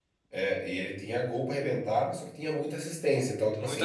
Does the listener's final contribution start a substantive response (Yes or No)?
No